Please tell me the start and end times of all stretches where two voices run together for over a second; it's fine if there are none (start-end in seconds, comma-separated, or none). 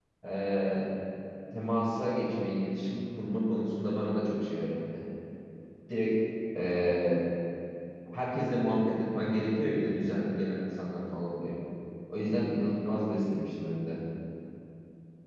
none